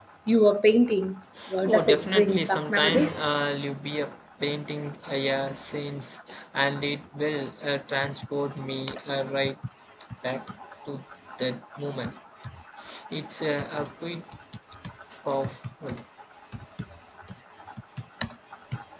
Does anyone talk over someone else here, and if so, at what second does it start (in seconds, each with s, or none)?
1.6 s